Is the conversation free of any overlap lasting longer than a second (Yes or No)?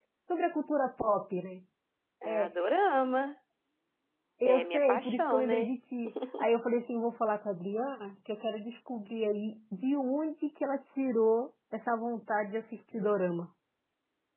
No